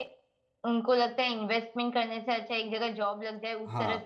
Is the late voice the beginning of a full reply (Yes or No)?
No